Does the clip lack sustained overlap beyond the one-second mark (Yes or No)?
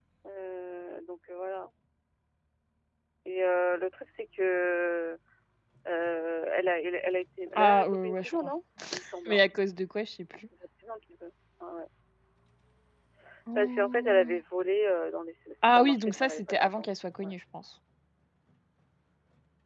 No